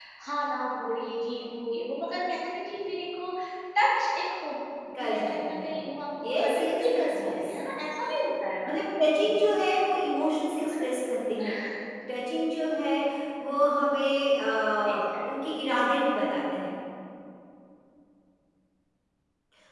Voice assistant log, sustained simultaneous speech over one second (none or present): present